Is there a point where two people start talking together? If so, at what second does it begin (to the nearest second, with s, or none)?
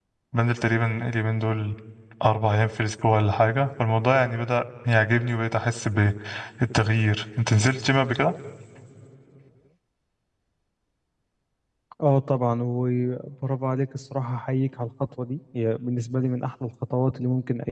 none